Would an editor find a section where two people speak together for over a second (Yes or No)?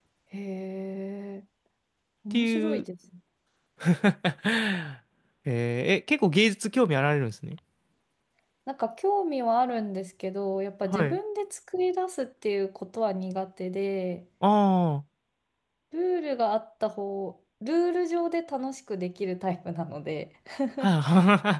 No